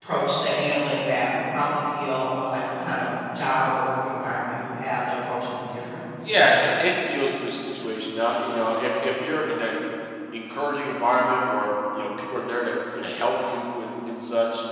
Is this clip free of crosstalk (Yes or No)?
Yes